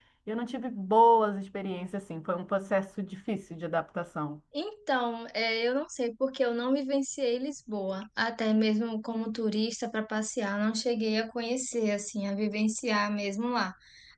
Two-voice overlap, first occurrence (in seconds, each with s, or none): none